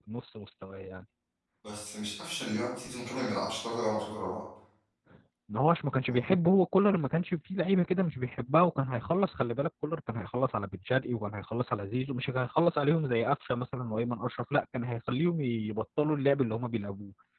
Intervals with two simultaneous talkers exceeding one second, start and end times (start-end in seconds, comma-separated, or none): none